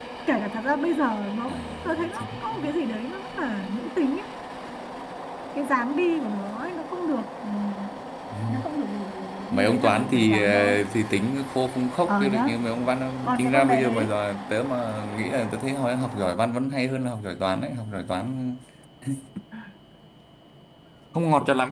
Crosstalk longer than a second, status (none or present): present